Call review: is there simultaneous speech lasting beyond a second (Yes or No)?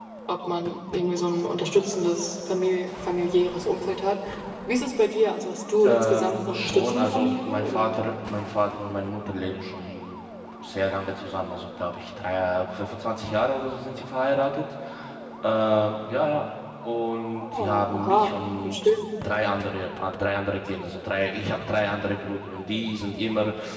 Yes